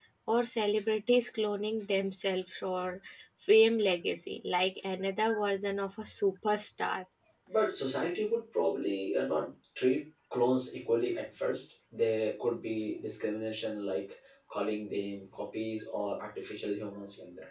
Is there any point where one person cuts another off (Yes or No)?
No